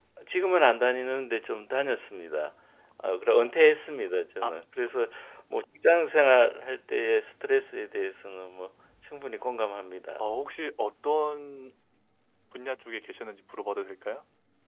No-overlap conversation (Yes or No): Yes